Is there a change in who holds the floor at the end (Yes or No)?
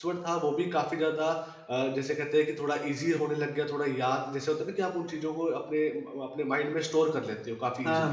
Yes